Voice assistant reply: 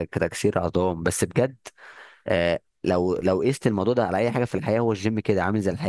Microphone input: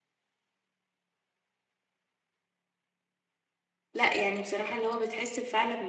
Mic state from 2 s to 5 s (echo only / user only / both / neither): user only